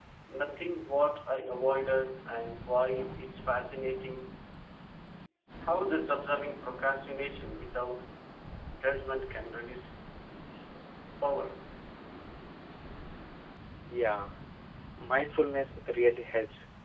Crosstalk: none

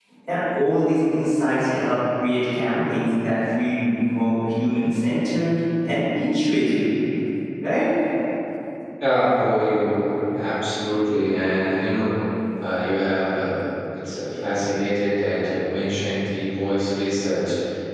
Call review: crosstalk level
none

